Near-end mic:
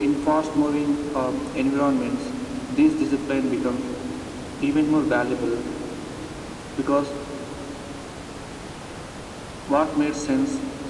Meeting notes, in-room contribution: none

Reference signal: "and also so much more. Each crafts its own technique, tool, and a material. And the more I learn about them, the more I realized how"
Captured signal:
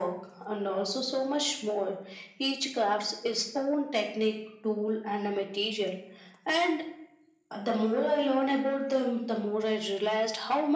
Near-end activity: none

